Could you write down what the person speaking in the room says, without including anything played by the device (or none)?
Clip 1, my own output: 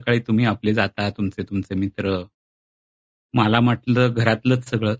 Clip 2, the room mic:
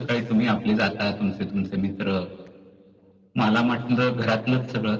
none